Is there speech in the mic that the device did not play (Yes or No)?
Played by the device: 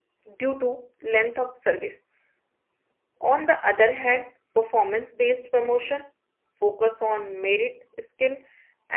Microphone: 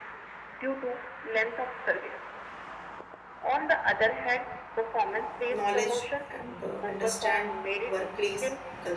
Yes